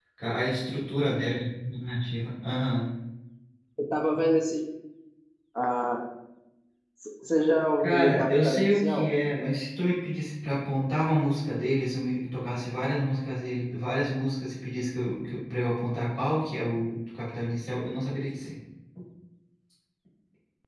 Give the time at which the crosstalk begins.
7.8 s

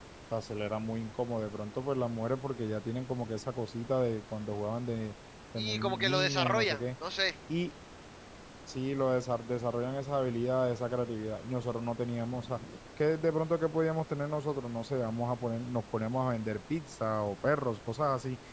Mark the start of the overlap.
5.6 s

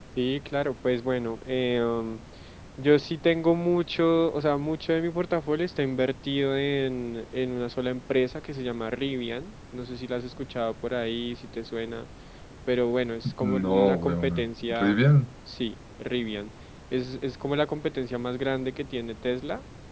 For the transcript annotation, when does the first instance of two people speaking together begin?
13.4 s

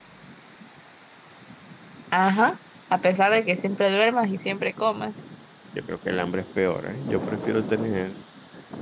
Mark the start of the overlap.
none

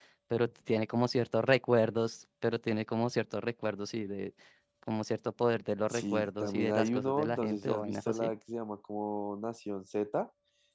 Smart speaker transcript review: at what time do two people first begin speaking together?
5.9 s

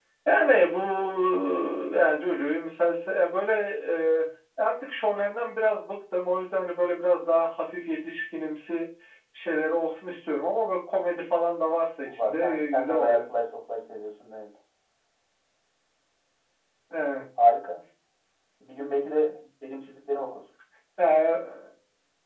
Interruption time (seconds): 12.0 s

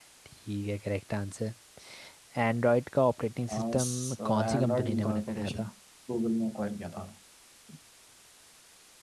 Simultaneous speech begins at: 3.5 s

